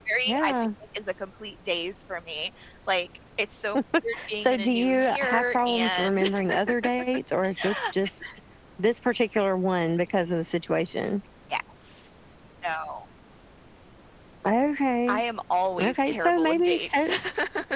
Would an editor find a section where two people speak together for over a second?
Yes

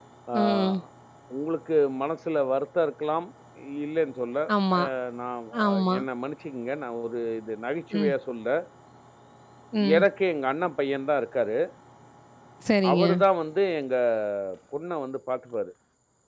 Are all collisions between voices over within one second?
Yes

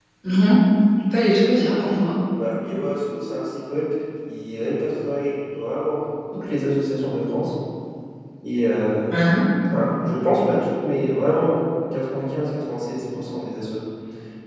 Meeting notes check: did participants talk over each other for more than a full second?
No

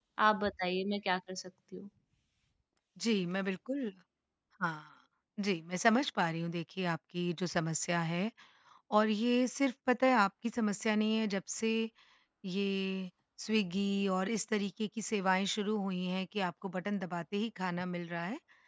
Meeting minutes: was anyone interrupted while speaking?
No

